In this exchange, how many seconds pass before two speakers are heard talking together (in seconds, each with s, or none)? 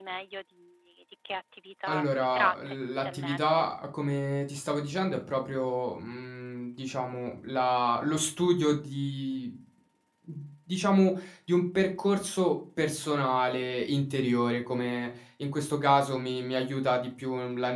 1.9 s